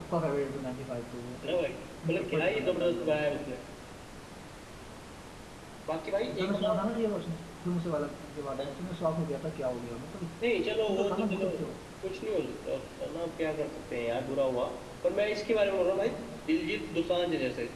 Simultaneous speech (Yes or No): Yes